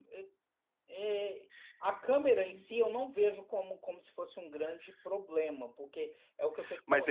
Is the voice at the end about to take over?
Yes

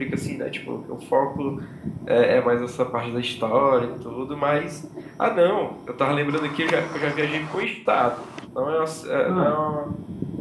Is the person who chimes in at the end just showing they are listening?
Yes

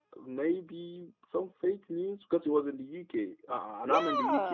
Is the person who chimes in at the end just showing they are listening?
Yes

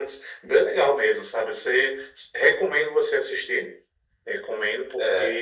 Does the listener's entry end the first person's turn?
No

